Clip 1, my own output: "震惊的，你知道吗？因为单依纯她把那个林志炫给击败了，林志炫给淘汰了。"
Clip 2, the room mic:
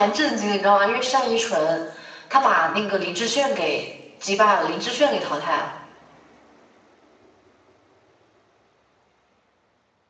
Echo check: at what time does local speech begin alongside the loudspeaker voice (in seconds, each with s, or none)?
none